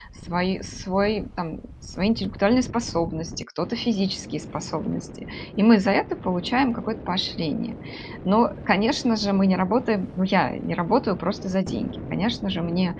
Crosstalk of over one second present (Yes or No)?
No